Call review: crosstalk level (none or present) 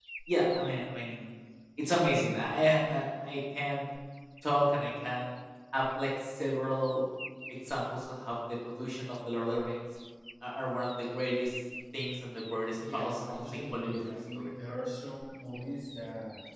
present